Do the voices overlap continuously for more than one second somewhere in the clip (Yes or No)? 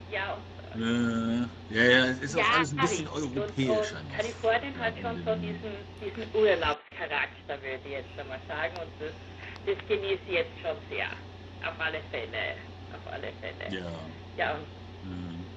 Yes